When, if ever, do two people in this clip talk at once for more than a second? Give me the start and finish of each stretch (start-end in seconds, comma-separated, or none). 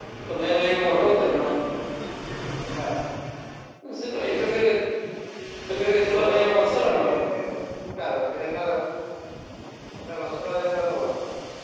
6.0-7.2